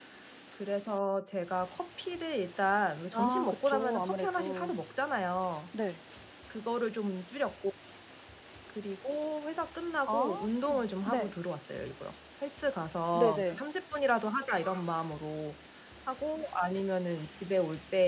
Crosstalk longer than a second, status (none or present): present